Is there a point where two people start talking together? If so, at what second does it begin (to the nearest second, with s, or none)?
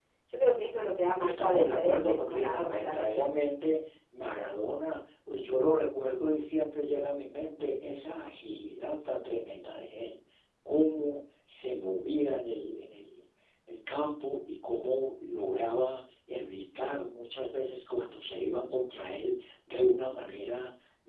1 s